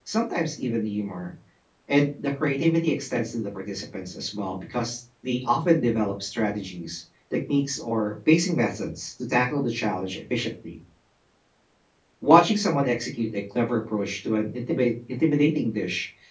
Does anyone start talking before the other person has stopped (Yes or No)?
No